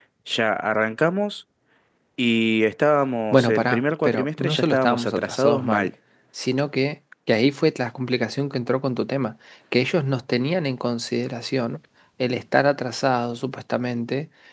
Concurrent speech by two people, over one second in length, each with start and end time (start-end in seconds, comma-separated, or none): 3.3-5.9